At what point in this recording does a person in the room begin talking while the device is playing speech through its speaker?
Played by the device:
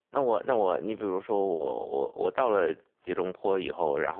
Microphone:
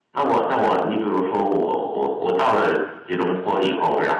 none

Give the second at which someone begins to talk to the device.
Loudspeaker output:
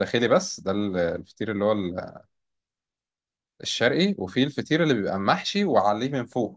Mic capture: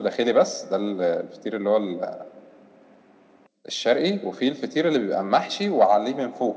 none

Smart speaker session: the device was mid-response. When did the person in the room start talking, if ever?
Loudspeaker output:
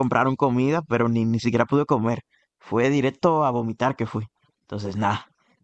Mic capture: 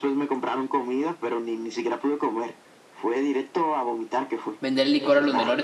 5 s

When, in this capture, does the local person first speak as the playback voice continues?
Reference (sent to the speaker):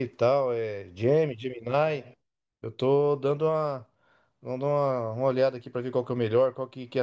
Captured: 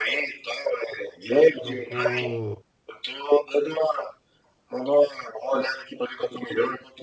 2 s

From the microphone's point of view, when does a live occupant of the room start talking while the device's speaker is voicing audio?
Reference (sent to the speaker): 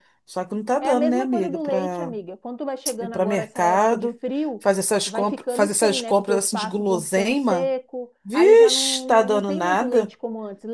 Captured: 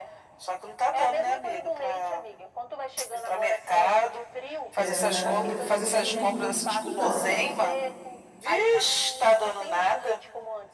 5 s

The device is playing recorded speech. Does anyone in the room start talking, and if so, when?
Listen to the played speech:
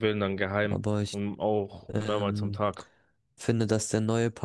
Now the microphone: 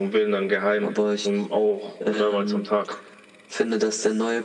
none

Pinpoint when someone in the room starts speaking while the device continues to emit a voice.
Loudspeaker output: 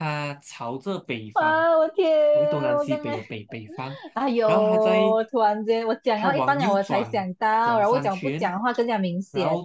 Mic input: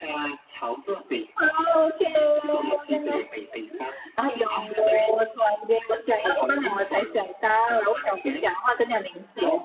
none

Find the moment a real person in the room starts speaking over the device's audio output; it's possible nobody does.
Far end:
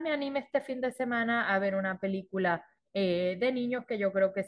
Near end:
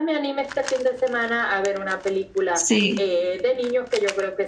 3 s

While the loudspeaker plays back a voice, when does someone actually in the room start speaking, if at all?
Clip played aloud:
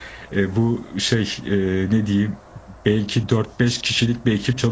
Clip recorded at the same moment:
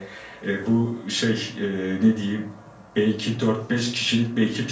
none

